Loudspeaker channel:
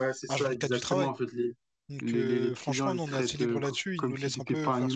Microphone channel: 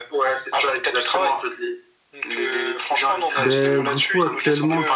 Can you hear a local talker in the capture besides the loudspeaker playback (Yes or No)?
Yes